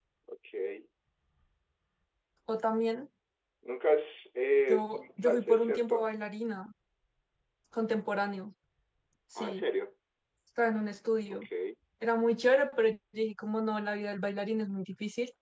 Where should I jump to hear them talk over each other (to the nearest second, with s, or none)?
5 s